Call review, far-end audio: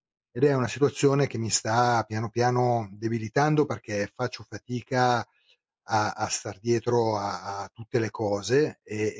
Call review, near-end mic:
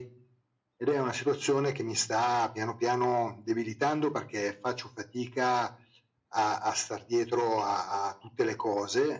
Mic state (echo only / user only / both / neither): echo only